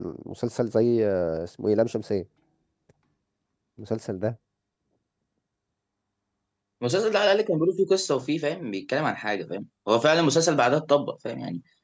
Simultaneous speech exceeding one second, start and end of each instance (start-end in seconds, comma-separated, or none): none